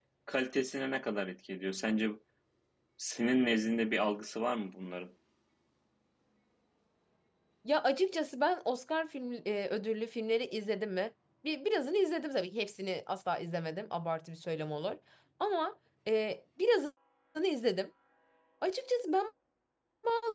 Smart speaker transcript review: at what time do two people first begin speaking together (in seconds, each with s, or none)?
none